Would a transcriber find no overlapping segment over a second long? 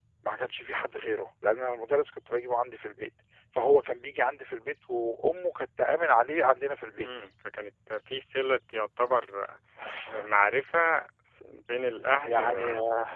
Yes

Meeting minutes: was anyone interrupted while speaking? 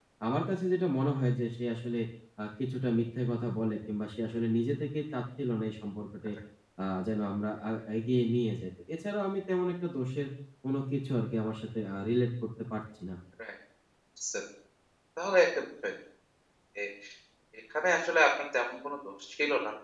No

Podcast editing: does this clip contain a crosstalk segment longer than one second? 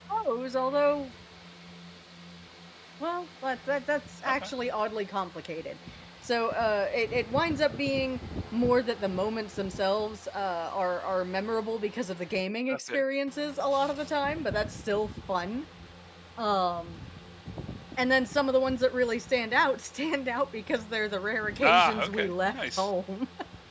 Yes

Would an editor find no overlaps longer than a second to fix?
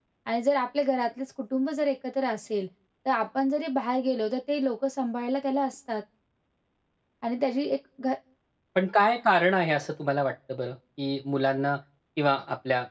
Yes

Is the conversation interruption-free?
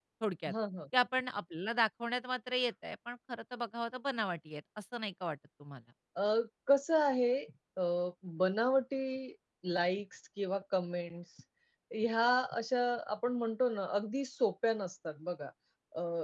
Yes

